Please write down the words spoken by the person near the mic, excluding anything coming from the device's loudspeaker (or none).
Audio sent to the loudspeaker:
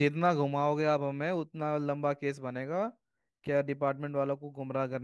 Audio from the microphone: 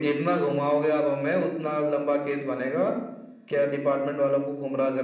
none